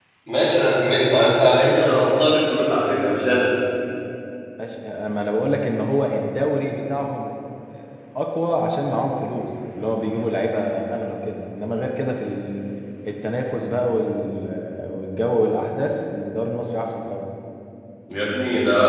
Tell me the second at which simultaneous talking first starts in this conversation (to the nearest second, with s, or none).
none